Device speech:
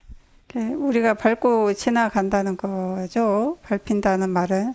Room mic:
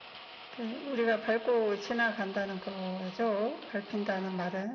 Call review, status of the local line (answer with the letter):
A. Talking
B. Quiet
B